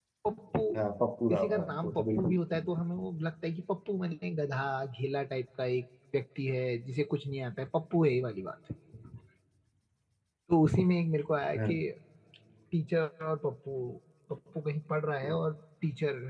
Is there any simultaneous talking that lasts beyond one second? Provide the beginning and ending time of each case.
1.3-2.7

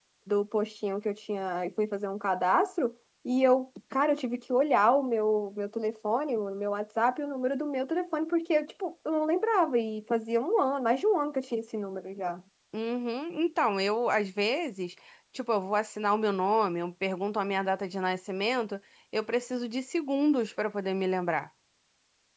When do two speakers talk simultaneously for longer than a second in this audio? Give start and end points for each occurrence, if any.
none

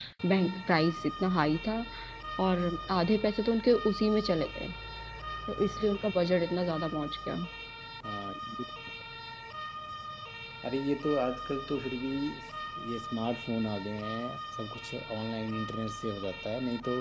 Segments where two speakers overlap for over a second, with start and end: none

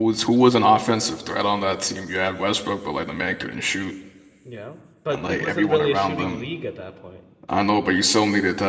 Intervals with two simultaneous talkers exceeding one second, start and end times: 5.1-6.4

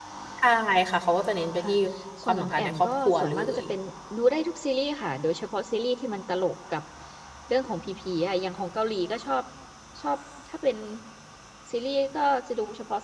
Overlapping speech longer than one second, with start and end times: 2.2-3.6

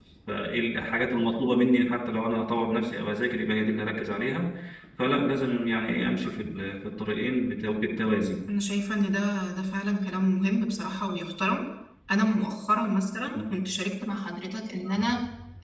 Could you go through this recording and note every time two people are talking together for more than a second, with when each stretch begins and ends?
none

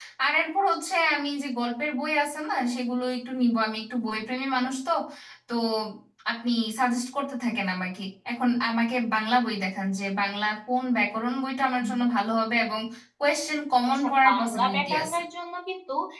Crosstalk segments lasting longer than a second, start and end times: 14.0-15.2

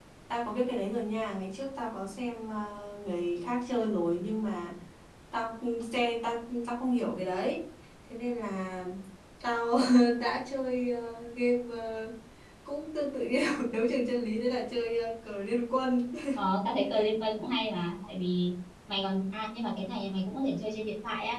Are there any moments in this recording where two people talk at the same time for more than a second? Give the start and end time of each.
none

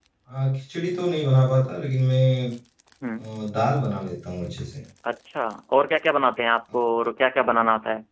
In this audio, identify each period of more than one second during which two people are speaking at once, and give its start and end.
none

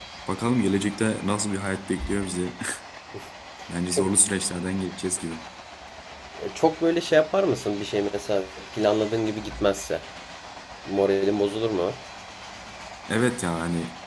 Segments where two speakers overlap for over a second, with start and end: none

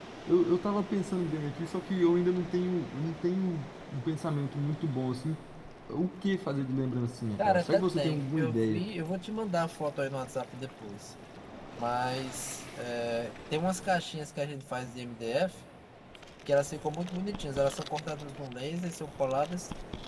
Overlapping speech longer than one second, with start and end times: 7.4-8.8

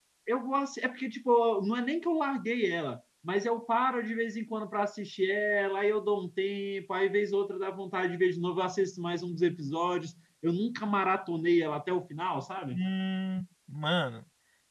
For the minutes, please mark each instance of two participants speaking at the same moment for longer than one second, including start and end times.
none

